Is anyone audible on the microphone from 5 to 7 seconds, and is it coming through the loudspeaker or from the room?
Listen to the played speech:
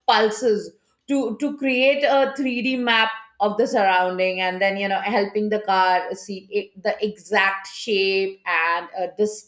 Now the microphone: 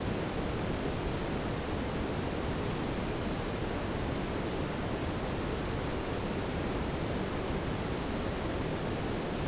neither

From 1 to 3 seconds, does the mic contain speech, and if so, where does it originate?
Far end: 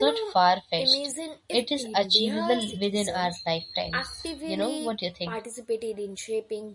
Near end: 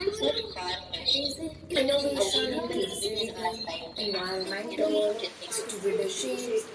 both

